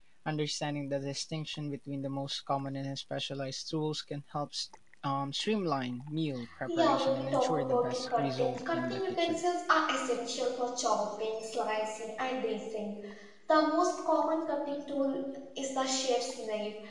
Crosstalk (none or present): present